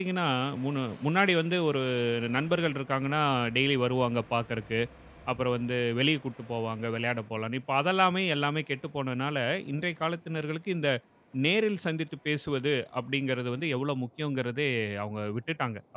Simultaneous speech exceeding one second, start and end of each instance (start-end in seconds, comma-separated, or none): none